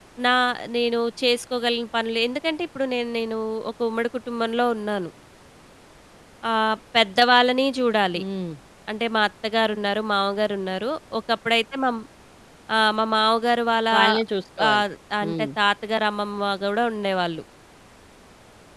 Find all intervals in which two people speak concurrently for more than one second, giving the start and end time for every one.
none

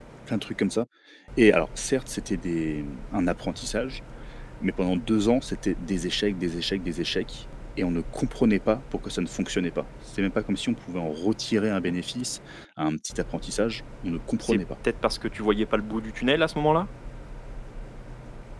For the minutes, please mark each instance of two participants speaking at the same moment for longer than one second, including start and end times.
none

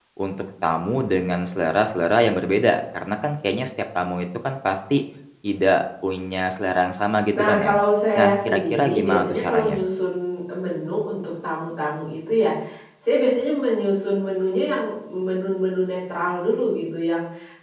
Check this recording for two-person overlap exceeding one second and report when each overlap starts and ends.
8.2-9.8

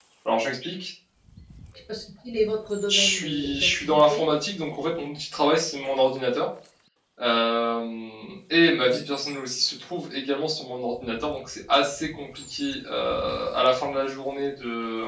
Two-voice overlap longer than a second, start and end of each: 2.9-4.3

